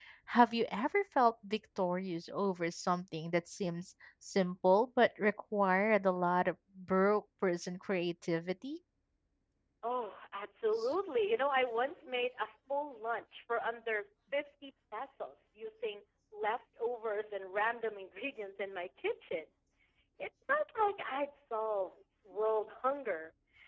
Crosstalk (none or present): none